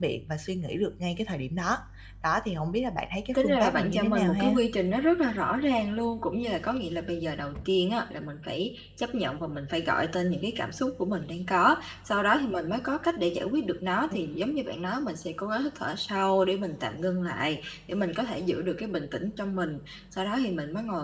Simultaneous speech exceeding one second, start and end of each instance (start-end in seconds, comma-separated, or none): 3.3-4.5